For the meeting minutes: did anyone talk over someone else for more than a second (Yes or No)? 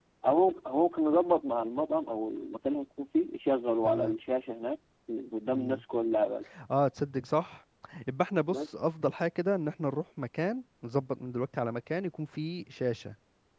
No